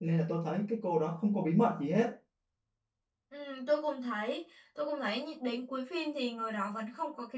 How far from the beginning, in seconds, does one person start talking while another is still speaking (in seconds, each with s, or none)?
none